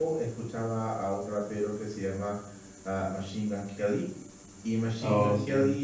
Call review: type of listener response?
listening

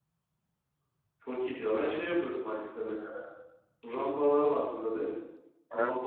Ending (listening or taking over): listening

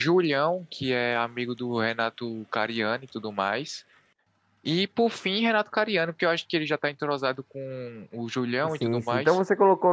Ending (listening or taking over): taking over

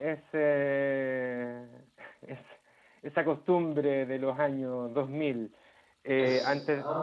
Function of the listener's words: listening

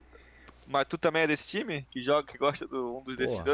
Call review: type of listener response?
taking over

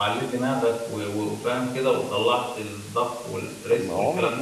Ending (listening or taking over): taking over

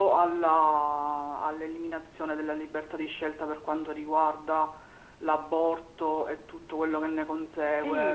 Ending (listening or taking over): taking over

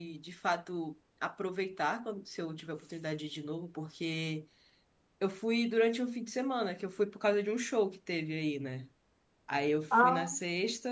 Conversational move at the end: listening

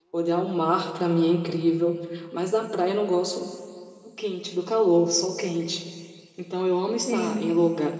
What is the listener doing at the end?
listening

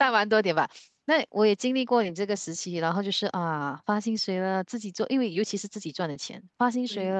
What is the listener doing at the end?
listening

